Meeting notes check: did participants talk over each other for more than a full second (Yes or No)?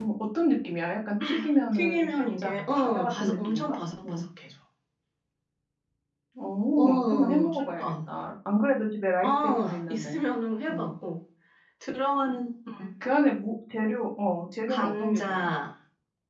Yes